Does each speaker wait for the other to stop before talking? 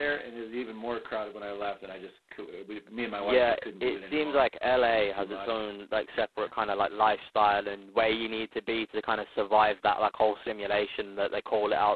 No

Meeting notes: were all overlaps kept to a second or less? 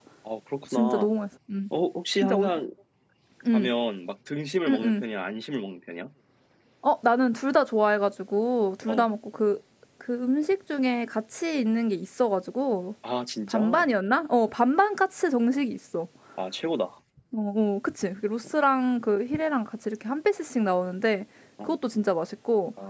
Yes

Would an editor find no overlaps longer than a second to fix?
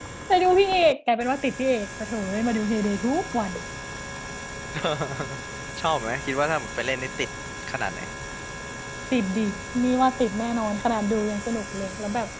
Yes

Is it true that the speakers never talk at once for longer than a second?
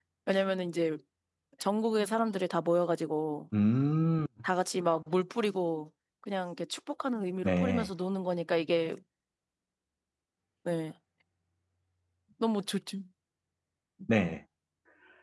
Yes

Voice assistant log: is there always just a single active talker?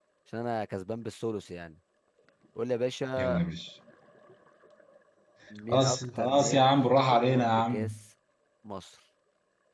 No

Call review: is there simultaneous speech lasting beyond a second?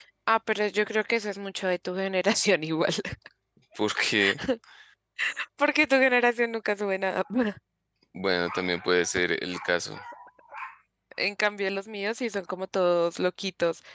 No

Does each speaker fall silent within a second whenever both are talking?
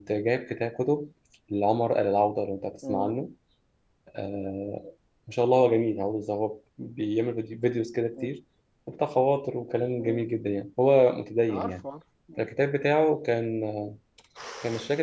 Yes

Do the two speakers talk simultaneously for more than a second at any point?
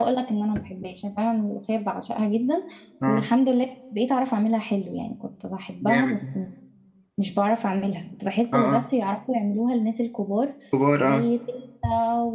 No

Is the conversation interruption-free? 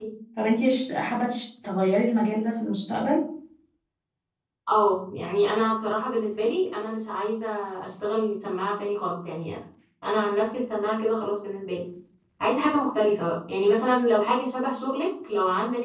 Yes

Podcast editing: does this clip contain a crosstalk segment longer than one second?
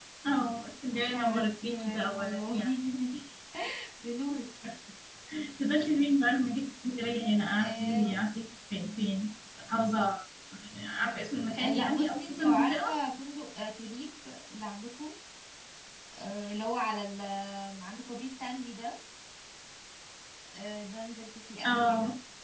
Yes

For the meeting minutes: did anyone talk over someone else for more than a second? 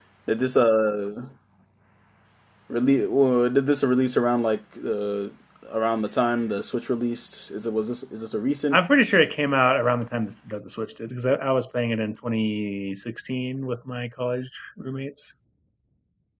No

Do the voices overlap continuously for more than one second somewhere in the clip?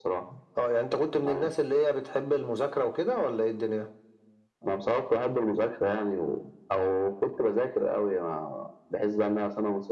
No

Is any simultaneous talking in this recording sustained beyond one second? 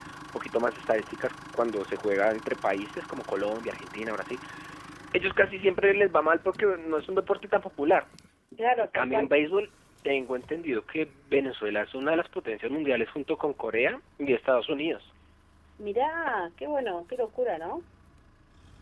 No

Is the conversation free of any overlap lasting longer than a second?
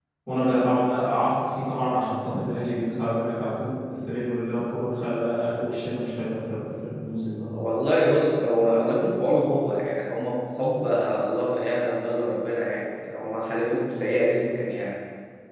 Yes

